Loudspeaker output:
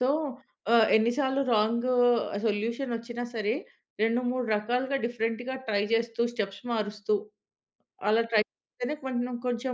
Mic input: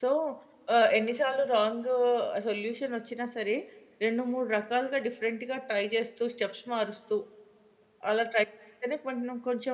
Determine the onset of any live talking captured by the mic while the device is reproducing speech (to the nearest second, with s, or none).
none